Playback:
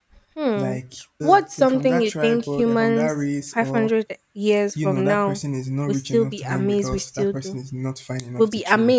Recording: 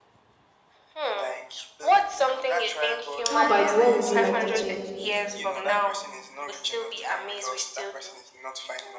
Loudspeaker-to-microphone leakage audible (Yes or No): Yes